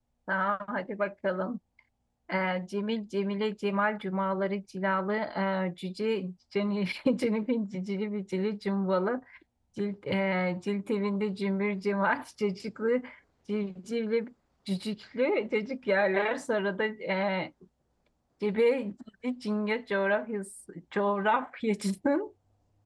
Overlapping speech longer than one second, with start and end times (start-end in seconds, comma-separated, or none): none